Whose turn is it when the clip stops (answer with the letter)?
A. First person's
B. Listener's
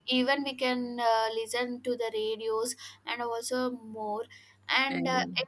A